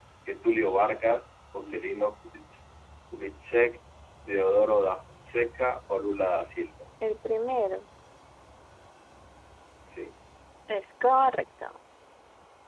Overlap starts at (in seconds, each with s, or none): none